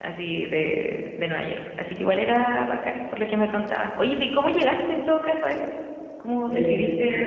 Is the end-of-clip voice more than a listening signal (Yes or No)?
Yes